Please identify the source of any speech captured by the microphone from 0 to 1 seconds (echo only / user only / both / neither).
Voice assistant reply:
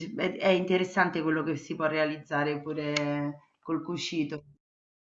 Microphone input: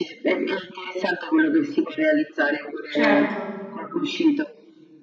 echo only